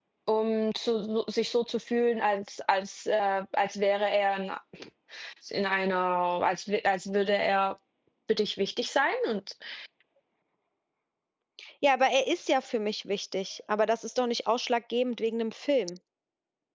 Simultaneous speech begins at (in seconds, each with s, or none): none